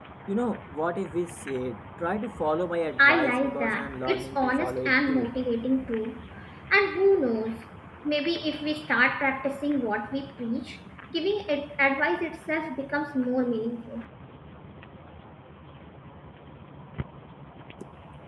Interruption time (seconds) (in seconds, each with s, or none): 3.0 s